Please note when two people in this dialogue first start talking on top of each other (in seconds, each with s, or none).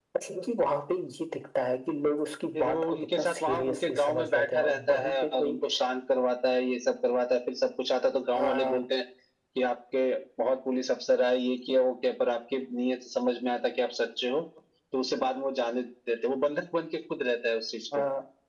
2.5 s